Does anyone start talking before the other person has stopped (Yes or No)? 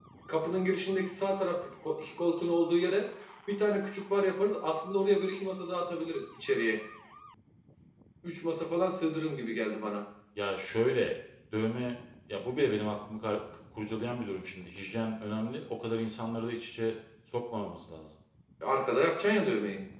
No